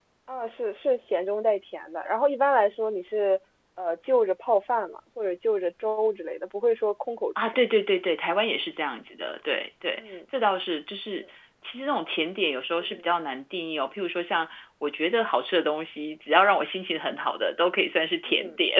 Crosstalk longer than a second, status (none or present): none